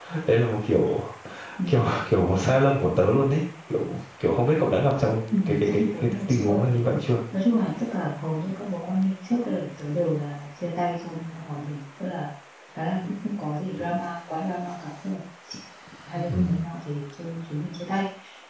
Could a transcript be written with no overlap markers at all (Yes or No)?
No